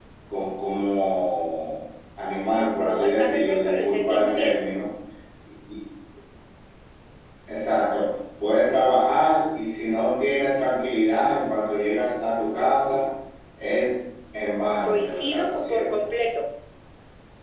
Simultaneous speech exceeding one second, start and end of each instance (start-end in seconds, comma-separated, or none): 2.9-4.6, 14.8-16.1